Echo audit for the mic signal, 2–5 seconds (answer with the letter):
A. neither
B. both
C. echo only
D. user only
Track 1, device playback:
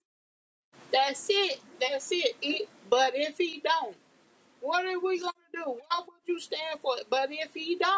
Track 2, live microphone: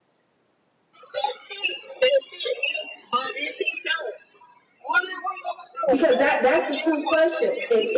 C